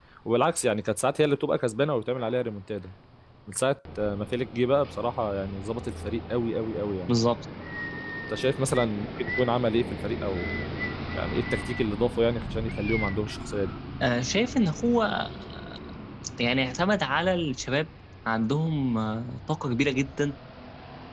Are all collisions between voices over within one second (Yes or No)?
Yes